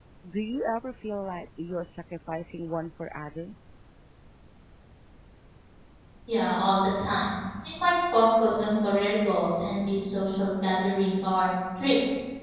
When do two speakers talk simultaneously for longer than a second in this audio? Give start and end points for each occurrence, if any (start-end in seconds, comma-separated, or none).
none